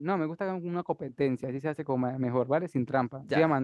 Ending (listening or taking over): listening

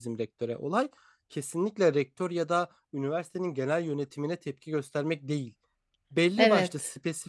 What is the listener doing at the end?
listening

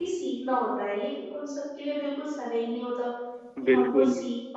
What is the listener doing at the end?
listening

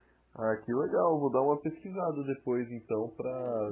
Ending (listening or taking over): taking over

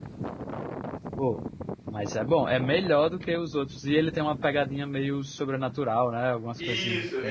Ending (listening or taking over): taking over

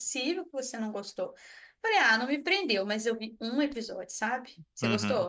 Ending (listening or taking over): taking over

